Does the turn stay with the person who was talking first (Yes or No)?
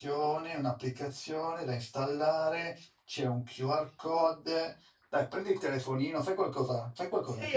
No